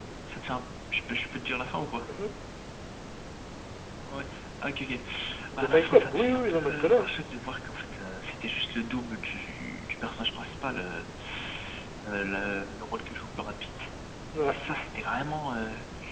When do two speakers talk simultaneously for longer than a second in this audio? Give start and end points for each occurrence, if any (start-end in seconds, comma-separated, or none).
5.5-7.1